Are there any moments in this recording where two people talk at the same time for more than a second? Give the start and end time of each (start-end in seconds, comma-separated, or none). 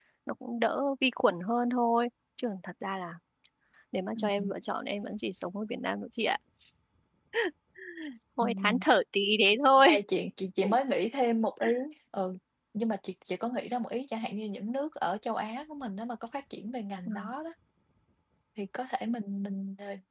none